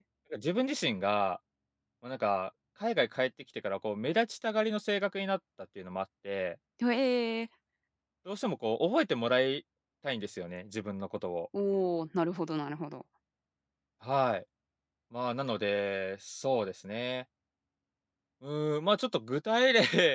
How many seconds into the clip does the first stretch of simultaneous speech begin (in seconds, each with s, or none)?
none